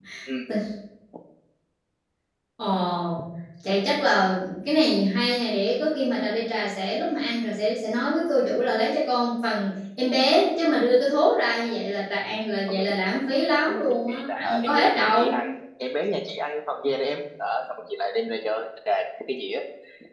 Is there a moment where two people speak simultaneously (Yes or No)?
Yes